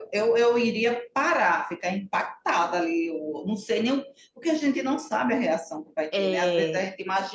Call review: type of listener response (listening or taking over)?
listening